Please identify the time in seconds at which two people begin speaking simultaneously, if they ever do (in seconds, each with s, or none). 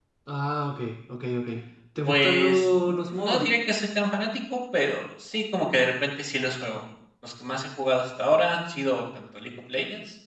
2.0 s